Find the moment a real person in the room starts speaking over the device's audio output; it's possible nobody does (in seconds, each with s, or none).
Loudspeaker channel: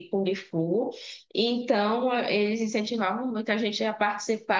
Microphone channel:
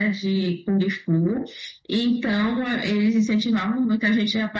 none